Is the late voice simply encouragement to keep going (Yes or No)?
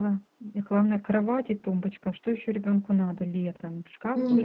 No